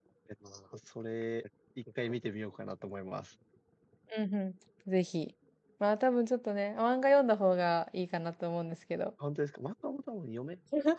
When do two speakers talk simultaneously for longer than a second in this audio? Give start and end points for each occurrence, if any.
none

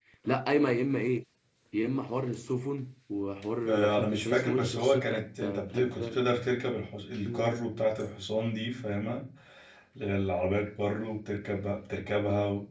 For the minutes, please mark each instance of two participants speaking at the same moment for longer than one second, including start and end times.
3.6-6.2

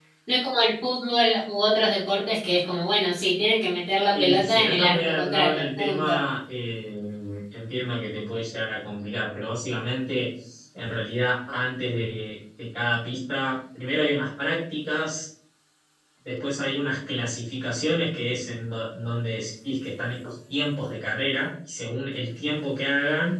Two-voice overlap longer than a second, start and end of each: 4.1-6.2

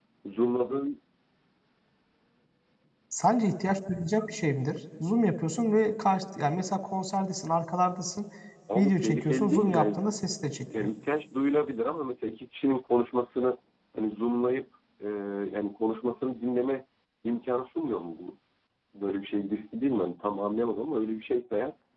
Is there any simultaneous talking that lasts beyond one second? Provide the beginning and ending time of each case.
8.8-10.0

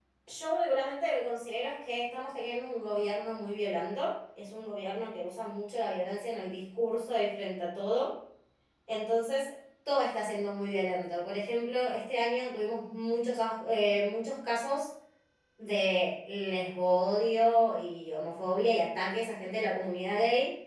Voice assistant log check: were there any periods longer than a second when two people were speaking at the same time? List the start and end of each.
none

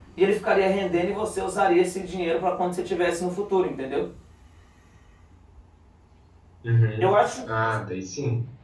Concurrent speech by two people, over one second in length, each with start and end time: none

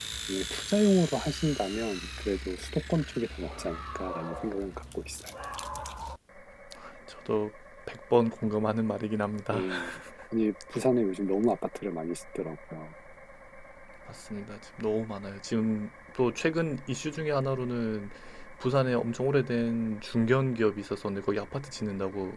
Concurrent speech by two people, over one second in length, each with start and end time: none

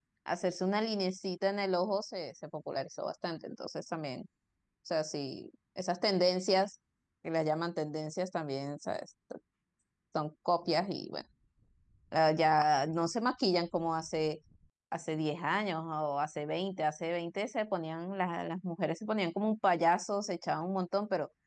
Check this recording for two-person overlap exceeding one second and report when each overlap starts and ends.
none

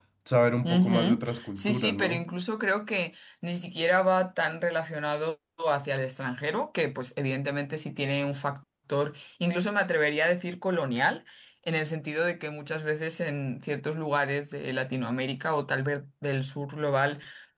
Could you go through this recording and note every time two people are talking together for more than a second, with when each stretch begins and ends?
0.6-2.3

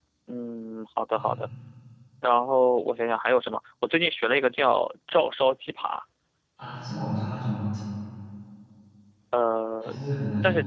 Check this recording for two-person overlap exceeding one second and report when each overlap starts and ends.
none

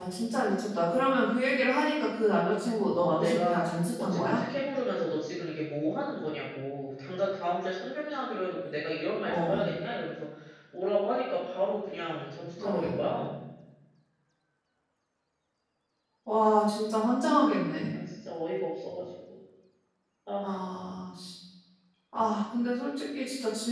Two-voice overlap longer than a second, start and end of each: 2.9-4.4

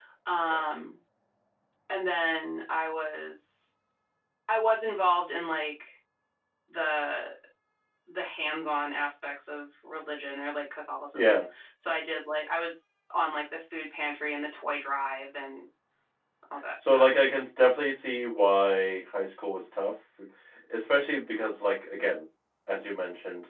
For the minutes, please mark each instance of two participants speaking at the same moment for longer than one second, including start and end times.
none

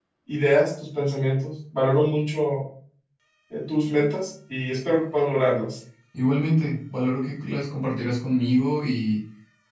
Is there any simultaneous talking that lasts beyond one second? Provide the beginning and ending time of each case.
none

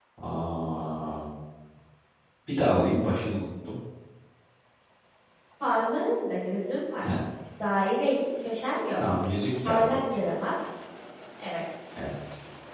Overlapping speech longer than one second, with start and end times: none

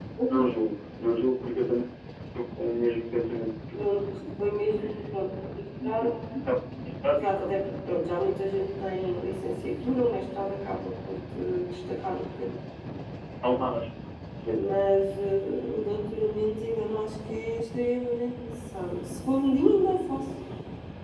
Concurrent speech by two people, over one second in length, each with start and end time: none

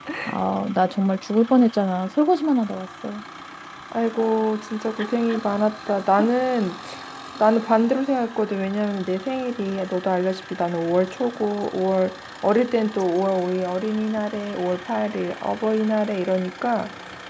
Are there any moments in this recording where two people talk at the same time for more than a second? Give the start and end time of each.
none

